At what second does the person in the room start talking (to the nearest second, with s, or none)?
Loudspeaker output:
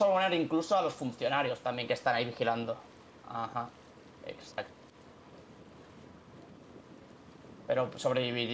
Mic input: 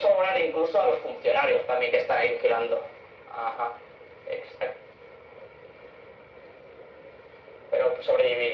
none